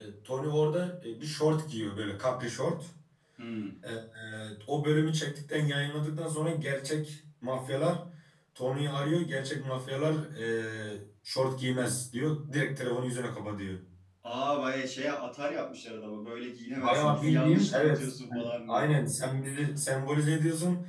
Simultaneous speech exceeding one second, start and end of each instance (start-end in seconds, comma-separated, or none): 16.8-18.8